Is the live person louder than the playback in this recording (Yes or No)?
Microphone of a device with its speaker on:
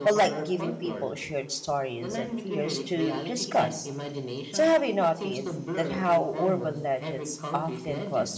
Yes